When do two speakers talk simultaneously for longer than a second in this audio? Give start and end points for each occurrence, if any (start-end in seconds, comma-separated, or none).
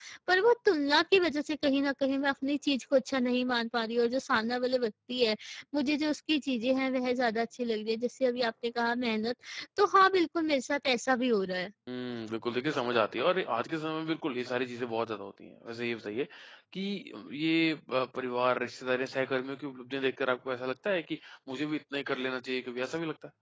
none